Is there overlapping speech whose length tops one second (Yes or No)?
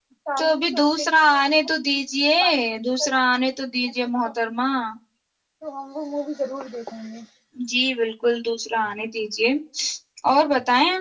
Yes